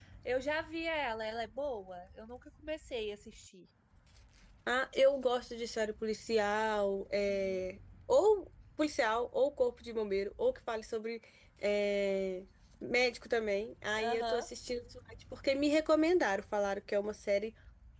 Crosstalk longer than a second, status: none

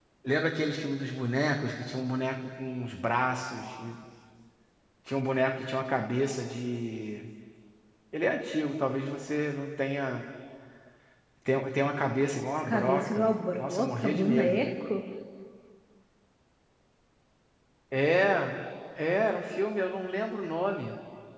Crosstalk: present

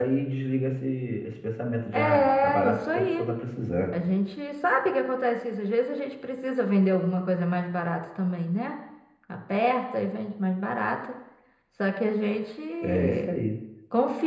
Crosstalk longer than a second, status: present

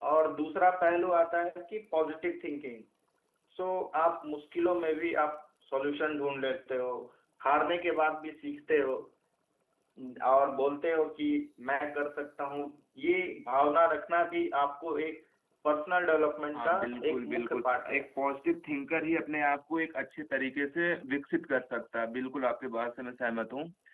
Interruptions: present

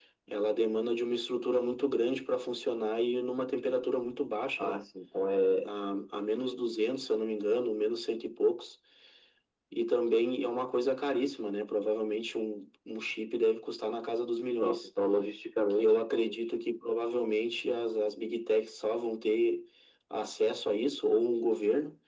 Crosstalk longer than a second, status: none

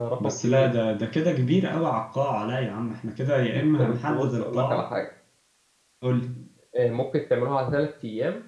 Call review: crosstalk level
present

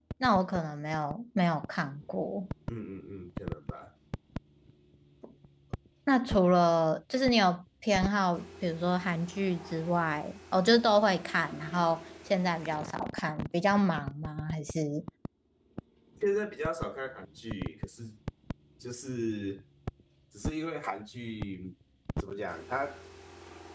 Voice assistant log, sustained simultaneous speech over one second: none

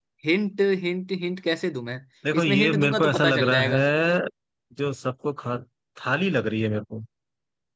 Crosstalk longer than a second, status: present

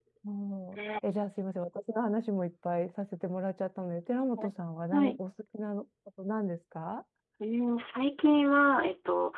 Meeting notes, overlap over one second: none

